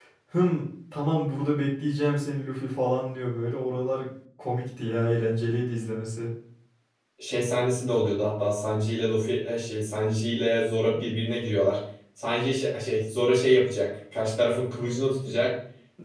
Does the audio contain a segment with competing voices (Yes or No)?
No